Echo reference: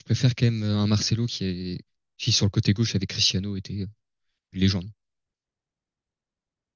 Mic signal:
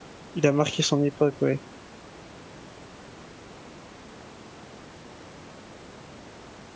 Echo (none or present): none